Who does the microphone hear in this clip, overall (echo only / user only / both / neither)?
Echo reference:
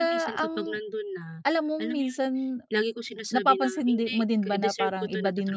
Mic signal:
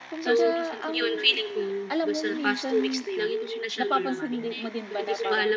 both